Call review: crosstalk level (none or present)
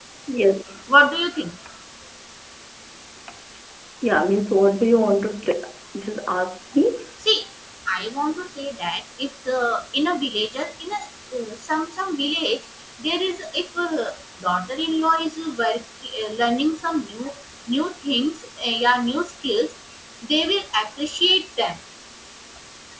none